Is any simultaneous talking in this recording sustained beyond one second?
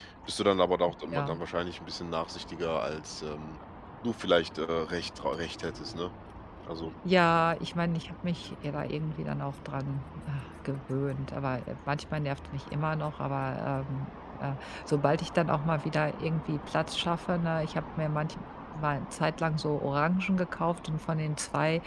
No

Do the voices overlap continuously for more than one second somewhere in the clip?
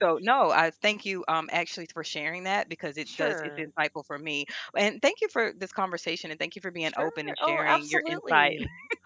Yes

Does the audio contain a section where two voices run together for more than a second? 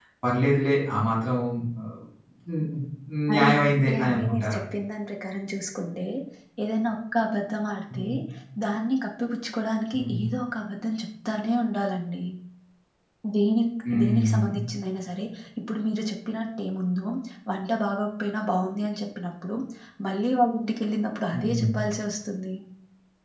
Yes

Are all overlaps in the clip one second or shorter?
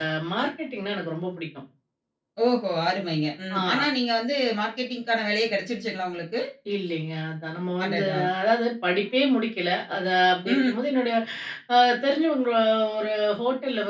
Yes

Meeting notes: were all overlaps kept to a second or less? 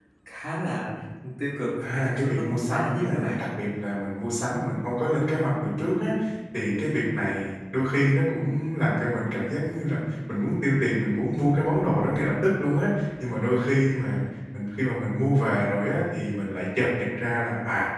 No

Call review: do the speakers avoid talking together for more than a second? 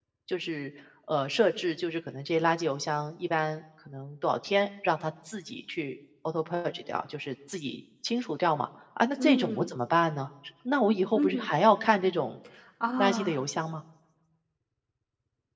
Yes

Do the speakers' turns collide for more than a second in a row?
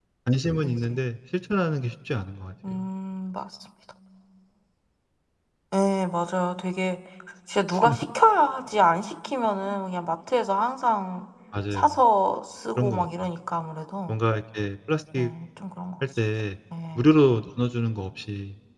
No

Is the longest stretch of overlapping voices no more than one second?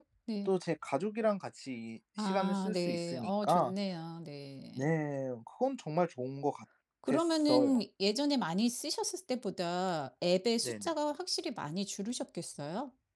No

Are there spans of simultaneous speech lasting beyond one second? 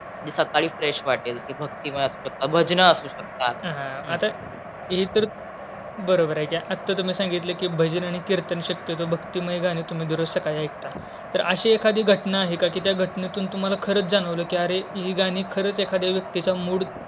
No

